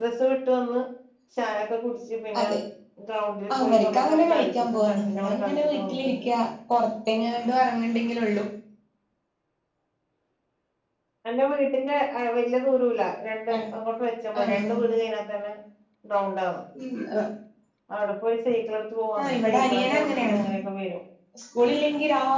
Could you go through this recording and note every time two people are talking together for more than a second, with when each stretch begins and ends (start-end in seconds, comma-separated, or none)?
3.6-6.2, 19.2-20.4